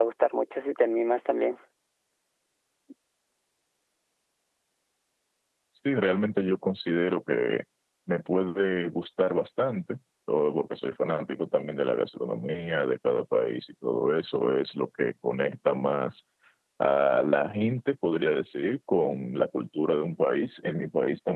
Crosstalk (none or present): none